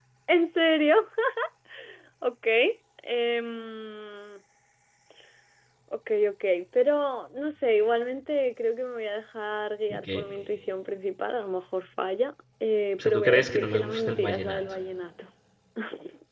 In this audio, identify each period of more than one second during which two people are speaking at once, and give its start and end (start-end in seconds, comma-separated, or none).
13.0-14.6